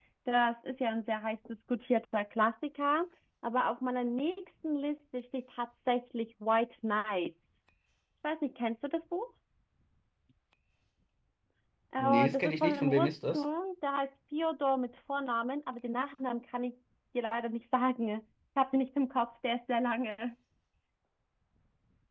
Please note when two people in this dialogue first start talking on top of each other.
12.0 s

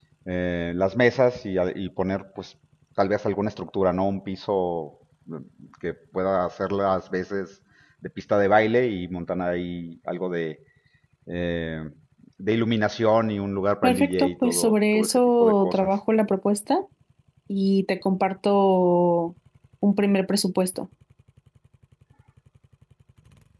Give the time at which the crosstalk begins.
13.8 s

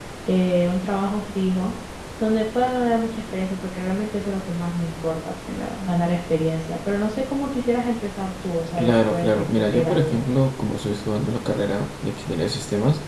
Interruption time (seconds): 8.8 s

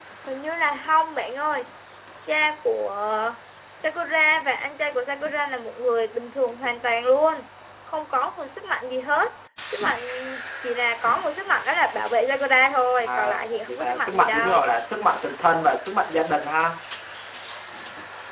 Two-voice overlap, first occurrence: 13.1 s

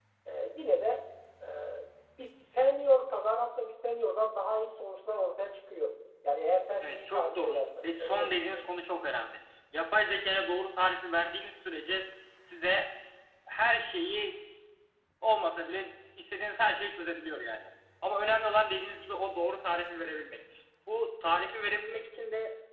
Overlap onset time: 6.8 s

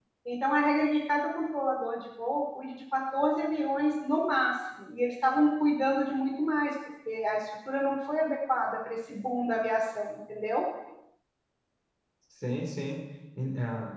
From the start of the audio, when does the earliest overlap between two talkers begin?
none

